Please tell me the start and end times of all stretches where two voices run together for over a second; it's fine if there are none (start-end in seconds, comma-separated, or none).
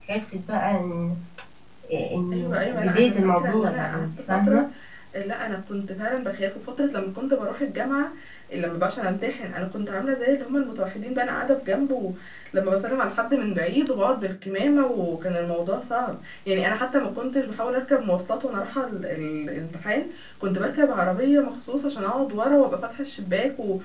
2.3-4.6